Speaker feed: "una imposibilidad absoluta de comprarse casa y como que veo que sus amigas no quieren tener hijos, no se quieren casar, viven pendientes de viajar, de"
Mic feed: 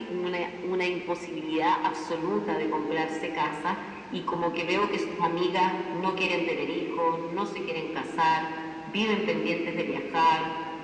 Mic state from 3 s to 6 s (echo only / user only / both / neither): echo only